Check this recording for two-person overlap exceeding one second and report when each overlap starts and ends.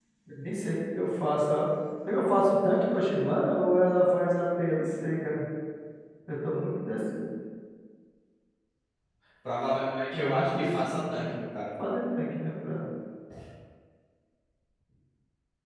10.1-11.3

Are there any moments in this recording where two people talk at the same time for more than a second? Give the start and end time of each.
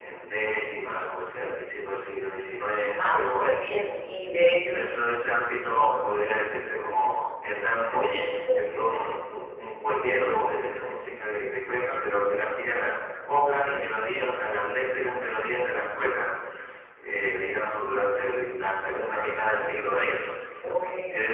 none

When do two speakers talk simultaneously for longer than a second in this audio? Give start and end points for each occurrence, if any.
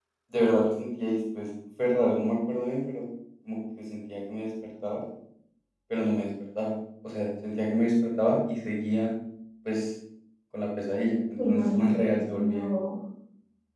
11.4-12.7

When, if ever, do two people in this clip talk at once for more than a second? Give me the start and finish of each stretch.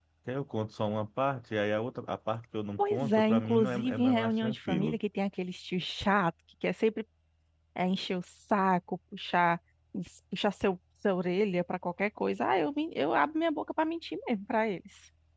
2.8-5.0

